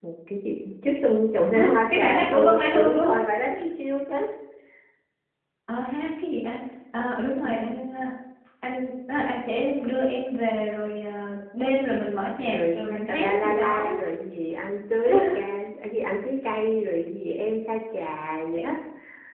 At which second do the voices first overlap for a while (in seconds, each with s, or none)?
1.5 s